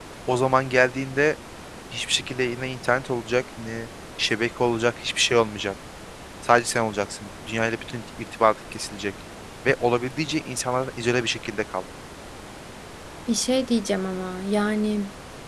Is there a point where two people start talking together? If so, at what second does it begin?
none

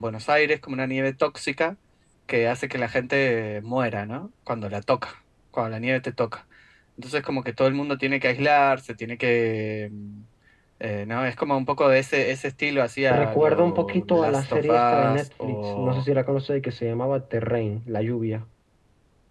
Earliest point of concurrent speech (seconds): 13 s

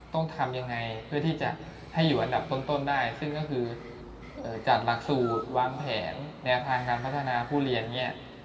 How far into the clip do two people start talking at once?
none

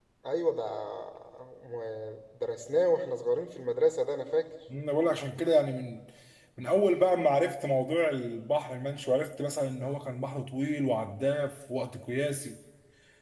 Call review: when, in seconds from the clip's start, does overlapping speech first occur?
none

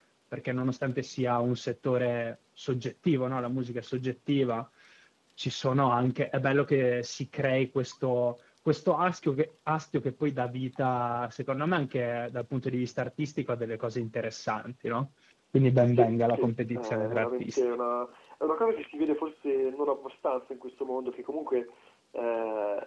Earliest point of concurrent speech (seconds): 16 s

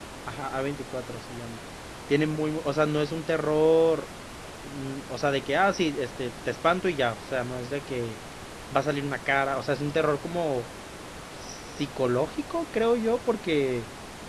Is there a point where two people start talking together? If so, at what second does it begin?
none

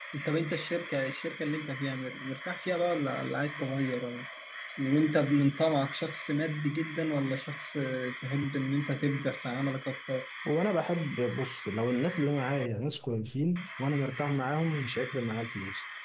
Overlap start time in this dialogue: none

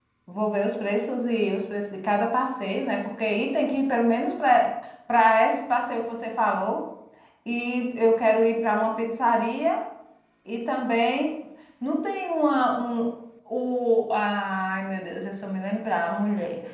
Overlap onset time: none

